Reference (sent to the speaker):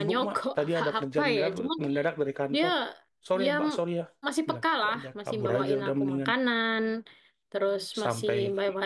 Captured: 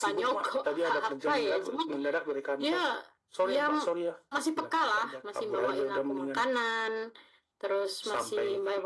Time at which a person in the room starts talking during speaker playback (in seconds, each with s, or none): none